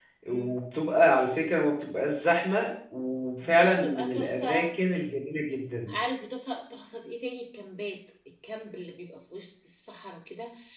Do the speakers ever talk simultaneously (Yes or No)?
Yes